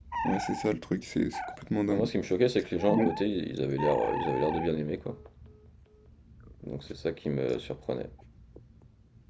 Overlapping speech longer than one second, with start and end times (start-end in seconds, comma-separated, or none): none